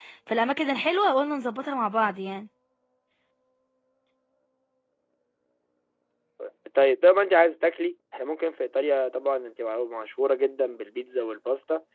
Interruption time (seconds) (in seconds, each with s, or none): none